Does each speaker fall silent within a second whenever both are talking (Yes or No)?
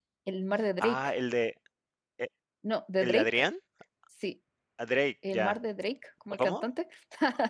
Yes